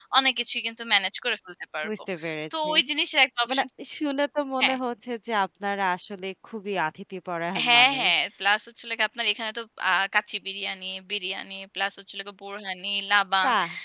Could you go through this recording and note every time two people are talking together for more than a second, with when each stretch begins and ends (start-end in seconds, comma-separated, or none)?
none